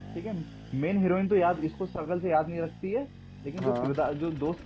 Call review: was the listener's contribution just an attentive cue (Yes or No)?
Yes